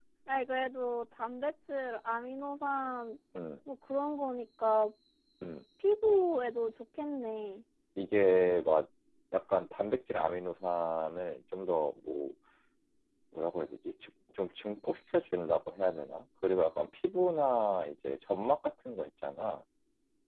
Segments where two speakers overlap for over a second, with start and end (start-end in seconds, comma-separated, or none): none